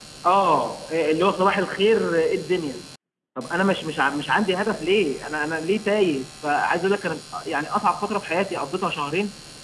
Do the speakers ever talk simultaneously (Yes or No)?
No